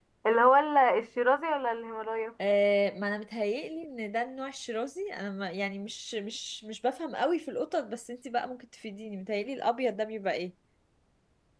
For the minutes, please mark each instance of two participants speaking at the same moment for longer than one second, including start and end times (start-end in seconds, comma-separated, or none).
none